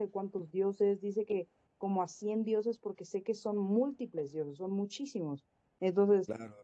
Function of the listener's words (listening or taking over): taking over